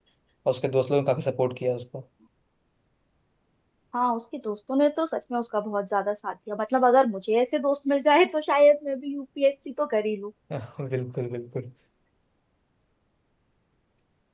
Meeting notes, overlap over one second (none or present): none